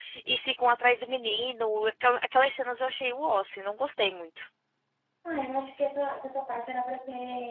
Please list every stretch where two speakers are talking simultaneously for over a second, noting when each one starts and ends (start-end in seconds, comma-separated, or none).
none